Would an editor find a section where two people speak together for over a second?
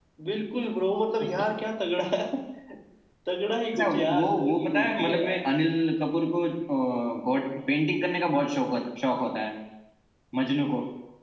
Yes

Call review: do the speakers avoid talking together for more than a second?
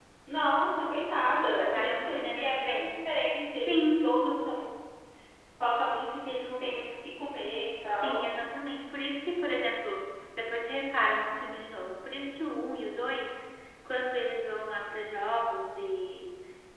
No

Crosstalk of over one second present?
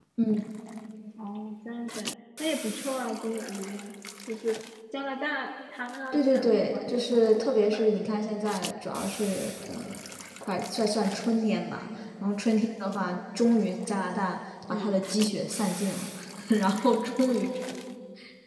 Yes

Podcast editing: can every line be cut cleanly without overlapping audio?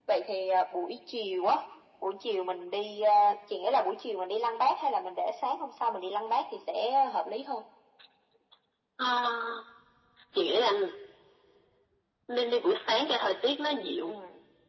Yes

